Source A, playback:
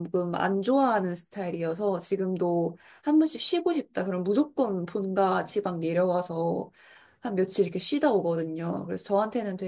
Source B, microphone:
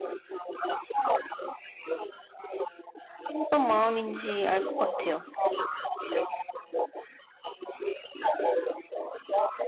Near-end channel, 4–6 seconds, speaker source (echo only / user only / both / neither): both